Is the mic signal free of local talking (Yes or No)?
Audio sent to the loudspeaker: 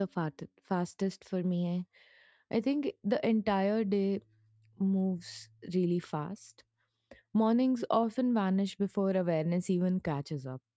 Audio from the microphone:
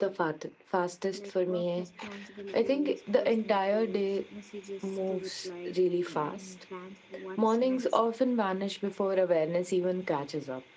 No